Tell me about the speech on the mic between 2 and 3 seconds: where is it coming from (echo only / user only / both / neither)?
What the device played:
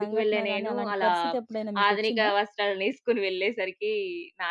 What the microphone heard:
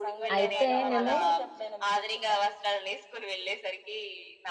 echo only